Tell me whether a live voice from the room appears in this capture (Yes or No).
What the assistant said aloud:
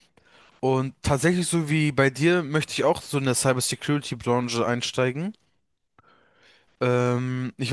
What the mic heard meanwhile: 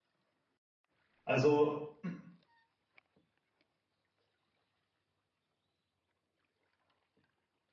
Yes